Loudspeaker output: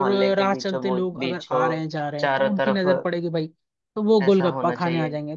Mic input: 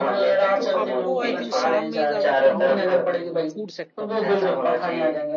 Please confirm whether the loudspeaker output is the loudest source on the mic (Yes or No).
Yes